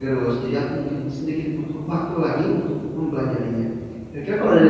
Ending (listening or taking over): listening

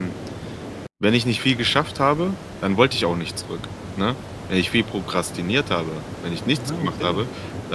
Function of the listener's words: listening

